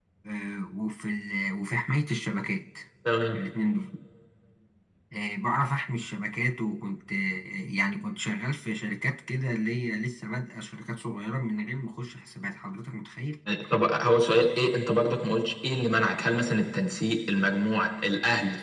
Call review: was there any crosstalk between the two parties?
No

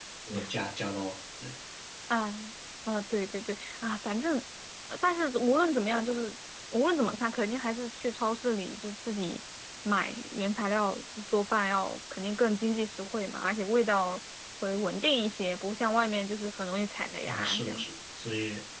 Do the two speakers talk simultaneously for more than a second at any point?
No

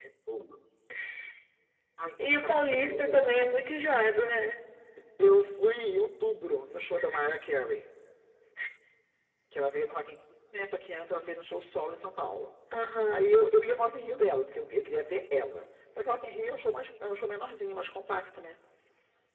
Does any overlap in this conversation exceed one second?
Yes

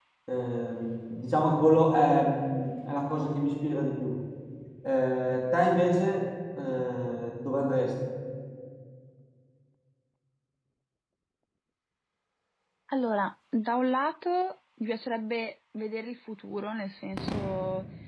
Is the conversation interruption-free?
Yes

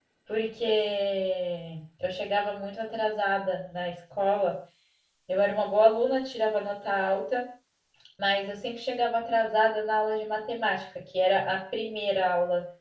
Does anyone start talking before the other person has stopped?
No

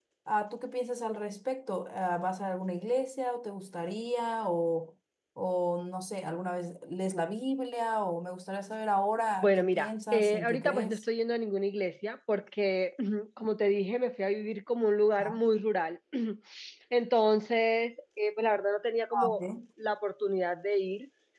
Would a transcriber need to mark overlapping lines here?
Yes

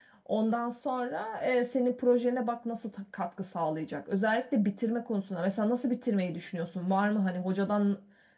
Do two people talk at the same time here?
No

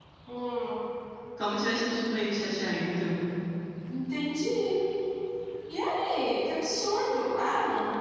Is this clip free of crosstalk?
Yes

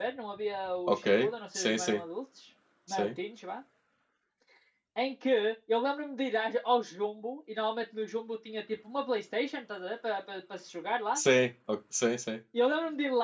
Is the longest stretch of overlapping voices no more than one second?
Yes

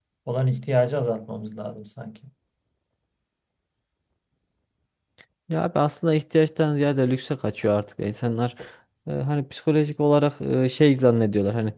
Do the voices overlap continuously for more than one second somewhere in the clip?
No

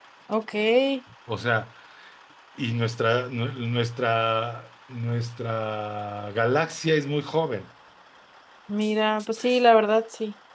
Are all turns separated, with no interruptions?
Yes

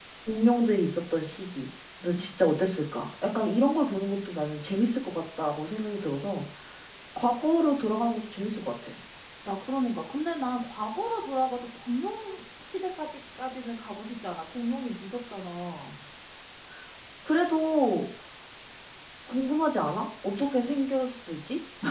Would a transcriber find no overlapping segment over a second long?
Yes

